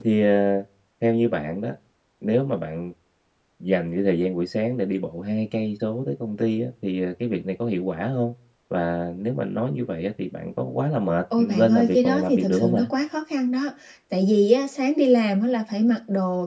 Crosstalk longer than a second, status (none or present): present